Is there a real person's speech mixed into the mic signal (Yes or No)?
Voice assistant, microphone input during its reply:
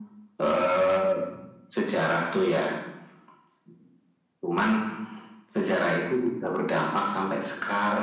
No